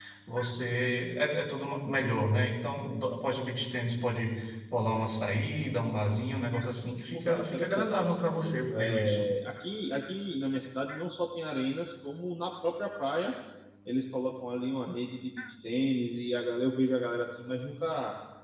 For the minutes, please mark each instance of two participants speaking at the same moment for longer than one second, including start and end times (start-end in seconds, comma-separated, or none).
7.1-9.3